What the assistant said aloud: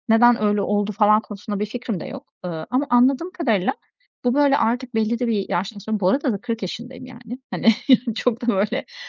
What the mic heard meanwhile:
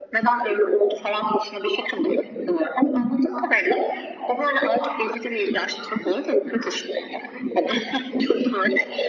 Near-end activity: none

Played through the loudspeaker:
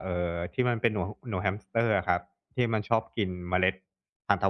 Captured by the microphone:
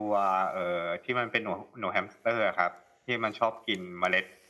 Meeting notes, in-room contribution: none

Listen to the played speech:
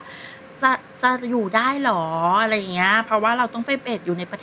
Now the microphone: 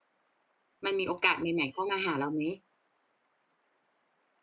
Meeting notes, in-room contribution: present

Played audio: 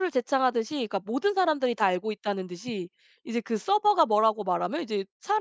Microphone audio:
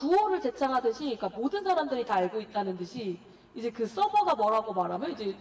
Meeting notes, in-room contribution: none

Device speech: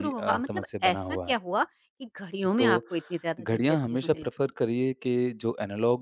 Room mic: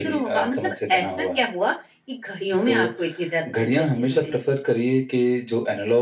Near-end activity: none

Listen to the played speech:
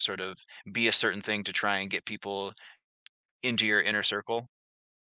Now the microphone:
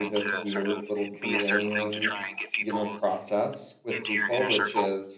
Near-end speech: present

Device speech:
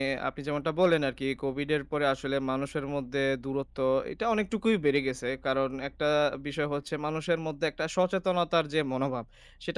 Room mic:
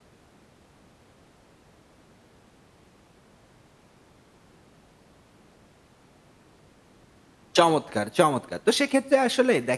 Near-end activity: present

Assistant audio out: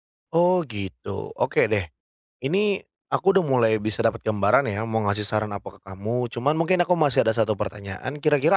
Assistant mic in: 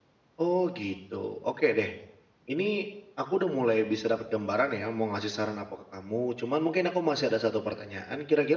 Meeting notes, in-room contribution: none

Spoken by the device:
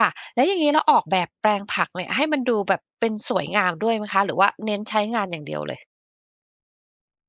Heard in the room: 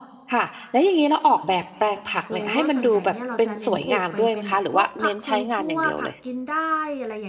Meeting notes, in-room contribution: present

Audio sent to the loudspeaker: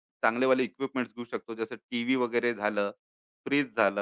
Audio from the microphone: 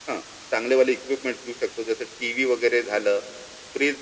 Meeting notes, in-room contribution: none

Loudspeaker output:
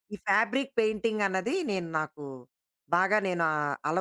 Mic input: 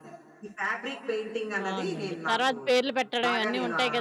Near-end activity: present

